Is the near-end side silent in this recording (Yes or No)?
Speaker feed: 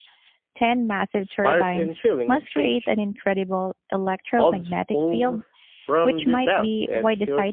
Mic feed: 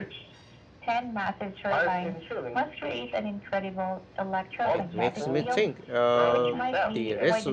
No